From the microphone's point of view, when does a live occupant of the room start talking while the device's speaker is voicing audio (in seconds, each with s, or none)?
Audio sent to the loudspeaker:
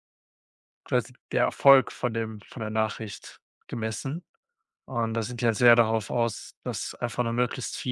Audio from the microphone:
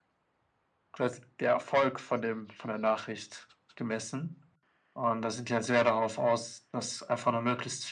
none